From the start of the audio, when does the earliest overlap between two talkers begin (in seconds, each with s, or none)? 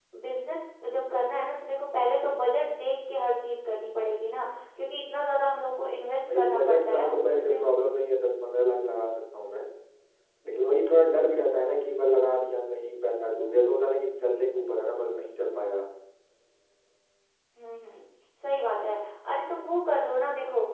6.2 s